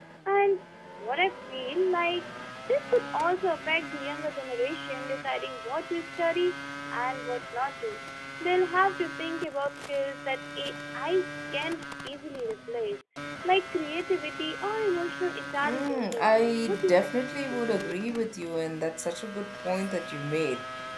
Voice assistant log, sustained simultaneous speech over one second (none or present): present